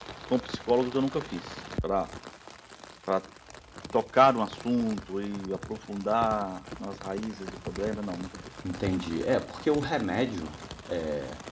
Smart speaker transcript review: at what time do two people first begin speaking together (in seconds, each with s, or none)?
none